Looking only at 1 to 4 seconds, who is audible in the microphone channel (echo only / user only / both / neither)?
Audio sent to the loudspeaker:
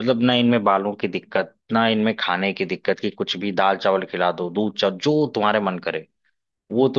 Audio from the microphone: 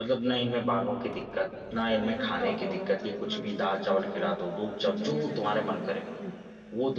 both